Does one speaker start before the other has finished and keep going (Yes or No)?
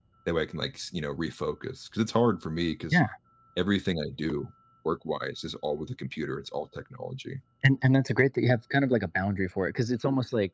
No